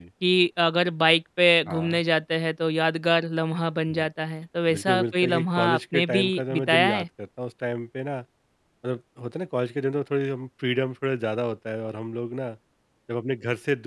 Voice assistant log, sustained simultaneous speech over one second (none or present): present